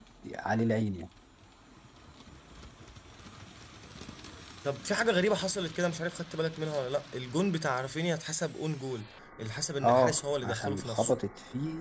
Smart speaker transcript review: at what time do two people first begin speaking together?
9.8 s

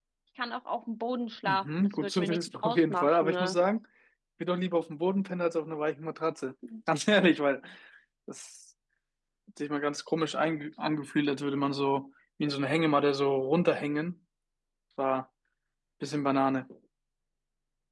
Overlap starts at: 1.4 s

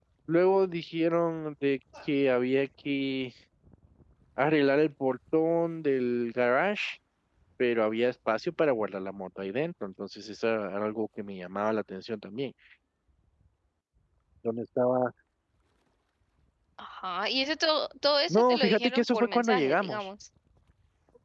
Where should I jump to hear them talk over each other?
18.3 s

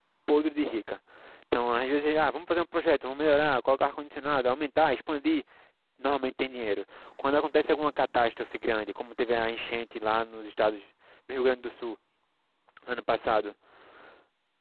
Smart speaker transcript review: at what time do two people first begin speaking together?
none

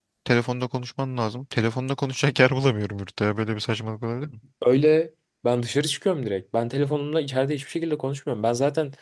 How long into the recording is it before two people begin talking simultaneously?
none

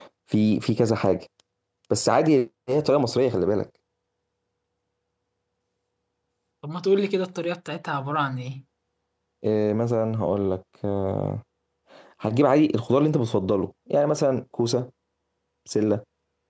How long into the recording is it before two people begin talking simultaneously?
none

